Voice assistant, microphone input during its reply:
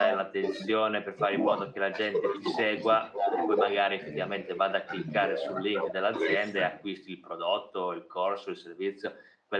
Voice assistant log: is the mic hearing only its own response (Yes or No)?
No